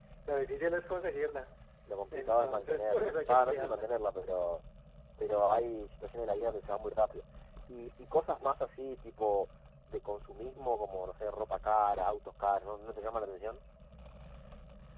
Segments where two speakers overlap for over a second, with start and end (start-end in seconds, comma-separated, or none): 2.1-3.9